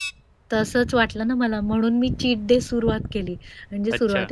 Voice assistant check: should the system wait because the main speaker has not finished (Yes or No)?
Yes